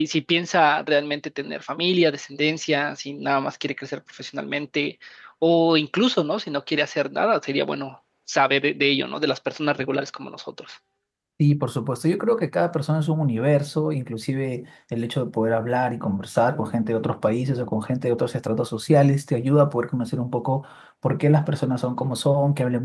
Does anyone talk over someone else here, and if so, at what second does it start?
none

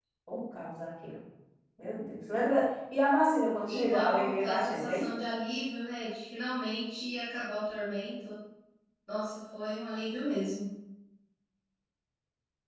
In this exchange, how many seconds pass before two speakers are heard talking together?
3.7 s

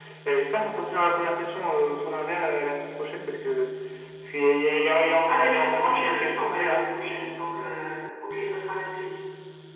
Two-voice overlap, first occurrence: 5.3 s

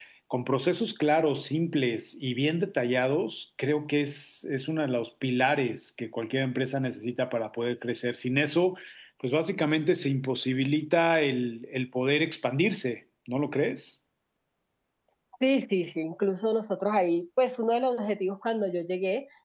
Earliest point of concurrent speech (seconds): none

